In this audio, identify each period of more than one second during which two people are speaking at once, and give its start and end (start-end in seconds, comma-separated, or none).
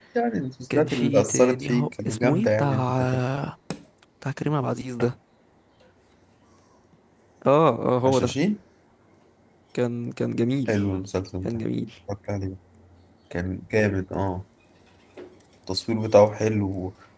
0.7-3.1